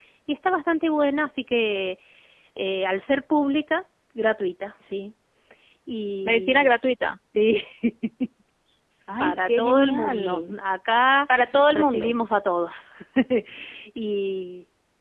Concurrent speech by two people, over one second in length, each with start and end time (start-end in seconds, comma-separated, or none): 9.2-10.6